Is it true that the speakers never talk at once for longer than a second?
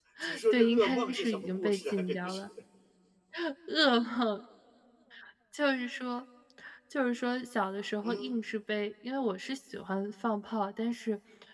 No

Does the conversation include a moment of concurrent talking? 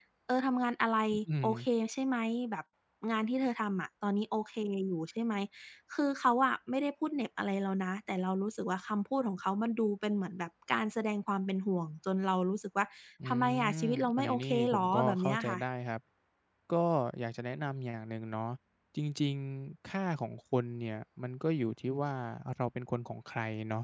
Yes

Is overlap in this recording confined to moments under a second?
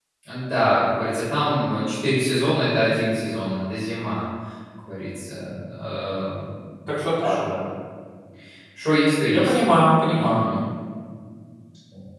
Yes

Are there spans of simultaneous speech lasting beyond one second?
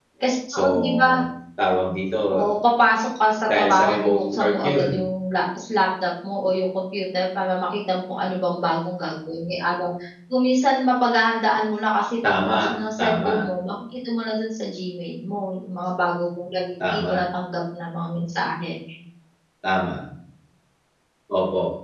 Yes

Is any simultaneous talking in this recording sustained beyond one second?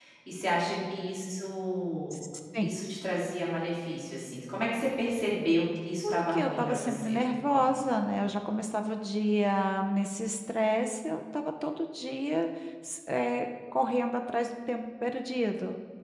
Yes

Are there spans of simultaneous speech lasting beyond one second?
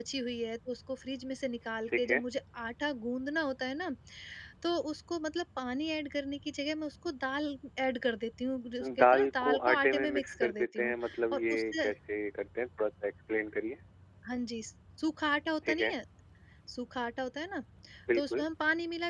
Yes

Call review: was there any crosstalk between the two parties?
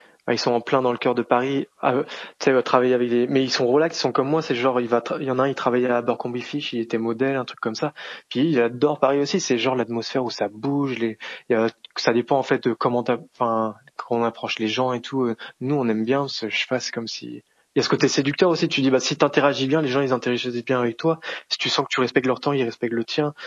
No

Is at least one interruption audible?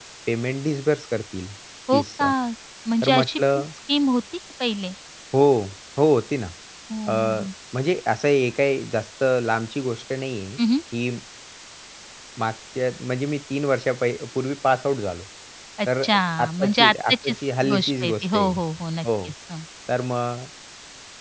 Yes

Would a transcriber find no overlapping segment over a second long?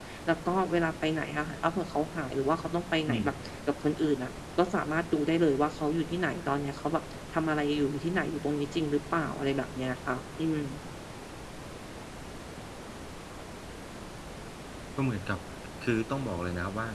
Yes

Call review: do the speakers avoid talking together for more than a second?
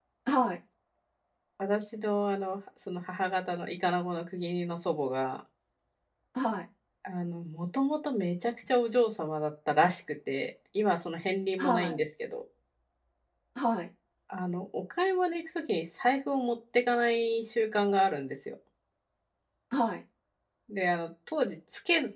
Yes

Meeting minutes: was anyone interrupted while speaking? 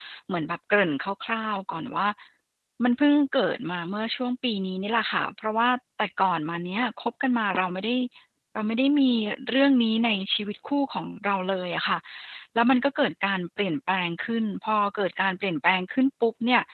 No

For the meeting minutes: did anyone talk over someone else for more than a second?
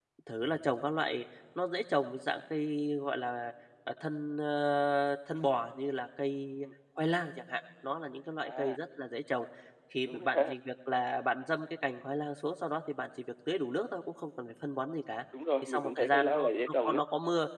Yes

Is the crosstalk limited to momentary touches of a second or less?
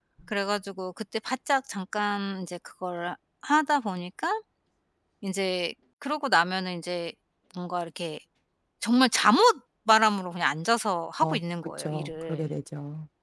No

